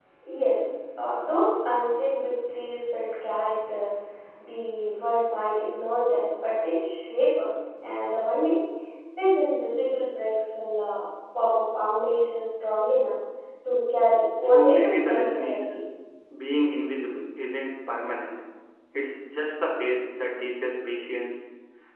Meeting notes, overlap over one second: present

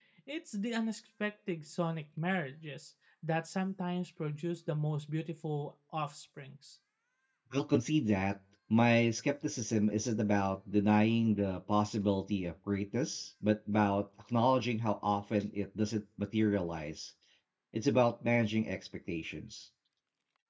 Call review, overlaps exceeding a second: none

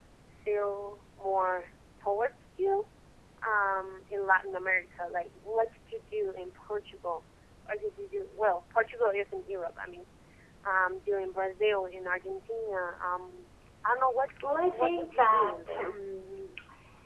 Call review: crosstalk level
present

